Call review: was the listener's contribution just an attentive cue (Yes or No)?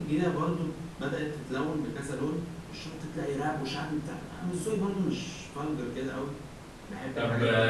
No